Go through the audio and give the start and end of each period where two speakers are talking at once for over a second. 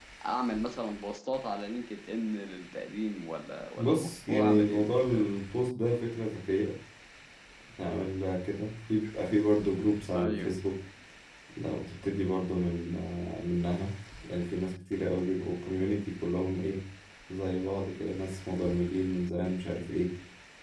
3.8-5.2

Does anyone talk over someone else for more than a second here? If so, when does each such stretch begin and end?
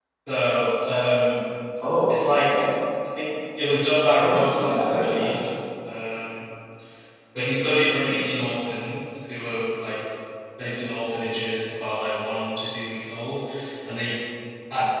4.2-5.5

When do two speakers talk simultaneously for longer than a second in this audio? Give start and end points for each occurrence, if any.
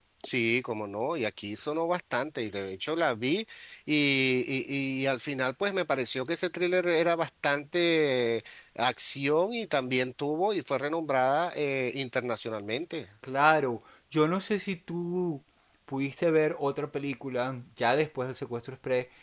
none

